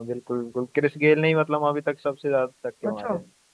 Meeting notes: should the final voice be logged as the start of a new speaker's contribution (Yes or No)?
Yes